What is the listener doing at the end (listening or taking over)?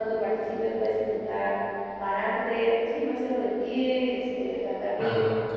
listening